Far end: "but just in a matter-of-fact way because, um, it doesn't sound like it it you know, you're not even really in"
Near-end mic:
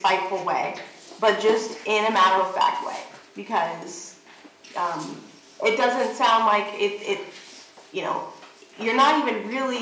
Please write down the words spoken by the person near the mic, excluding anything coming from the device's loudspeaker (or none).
none